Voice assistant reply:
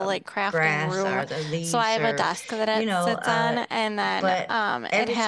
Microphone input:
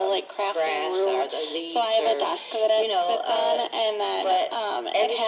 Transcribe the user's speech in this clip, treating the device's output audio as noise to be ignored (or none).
none